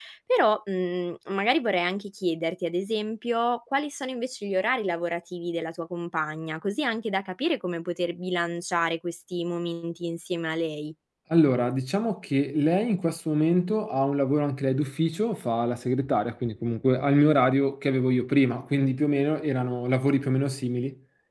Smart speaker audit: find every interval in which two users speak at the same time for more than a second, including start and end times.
none

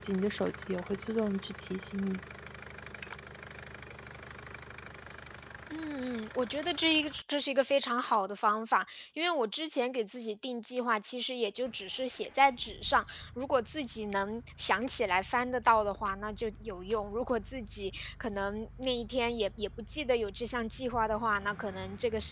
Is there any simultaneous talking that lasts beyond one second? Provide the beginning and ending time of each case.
none

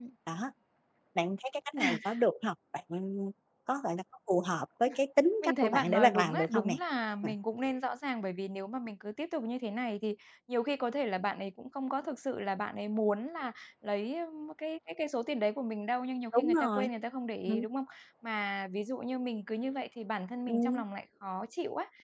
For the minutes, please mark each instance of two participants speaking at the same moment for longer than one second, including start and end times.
5.4-6.8

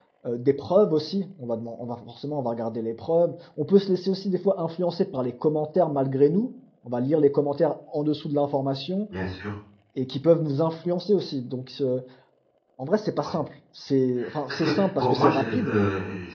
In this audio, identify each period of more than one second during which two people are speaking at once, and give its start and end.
14.5-15.8

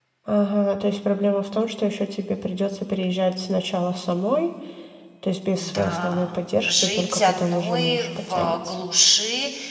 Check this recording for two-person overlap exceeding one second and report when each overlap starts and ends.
5.7-8.8

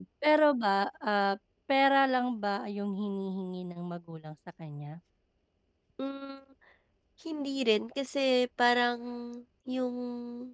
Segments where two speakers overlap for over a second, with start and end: none

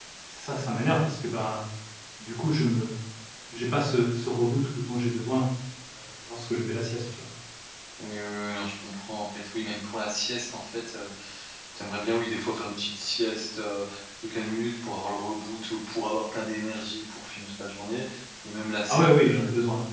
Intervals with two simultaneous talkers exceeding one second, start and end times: none

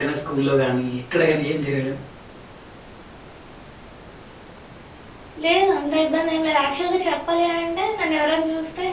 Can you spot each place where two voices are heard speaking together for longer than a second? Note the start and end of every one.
none

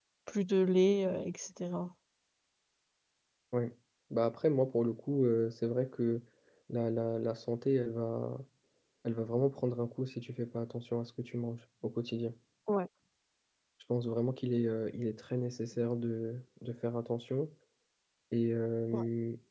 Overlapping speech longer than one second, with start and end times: none

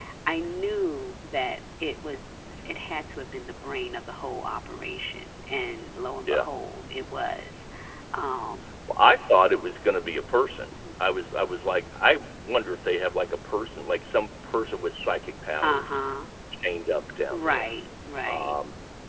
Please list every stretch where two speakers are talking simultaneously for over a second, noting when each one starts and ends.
none

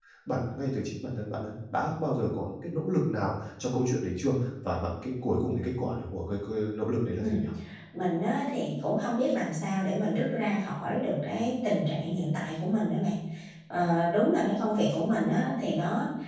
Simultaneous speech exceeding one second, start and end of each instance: none

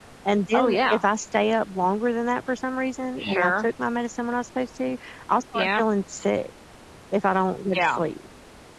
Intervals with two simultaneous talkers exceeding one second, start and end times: none

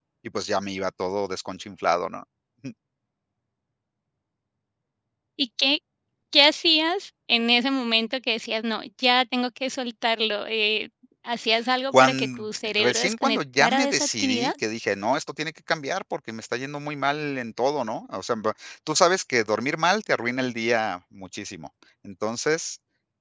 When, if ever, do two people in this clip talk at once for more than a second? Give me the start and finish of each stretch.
11.9-14.5

